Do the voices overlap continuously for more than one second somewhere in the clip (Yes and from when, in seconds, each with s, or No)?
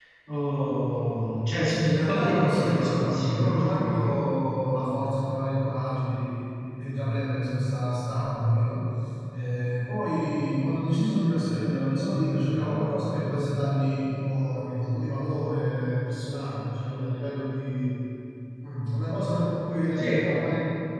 Yes, from 1.8 s